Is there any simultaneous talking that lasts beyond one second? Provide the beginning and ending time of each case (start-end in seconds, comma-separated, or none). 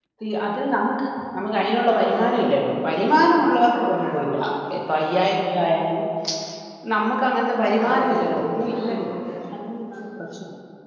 7.8-9.2